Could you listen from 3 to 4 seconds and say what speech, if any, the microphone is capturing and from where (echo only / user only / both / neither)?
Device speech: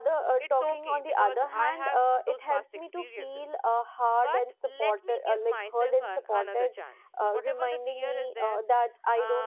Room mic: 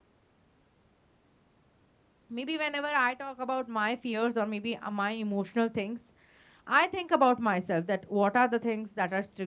user only